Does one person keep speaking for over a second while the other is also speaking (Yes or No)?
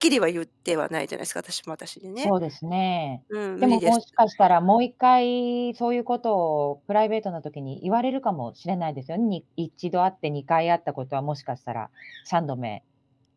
No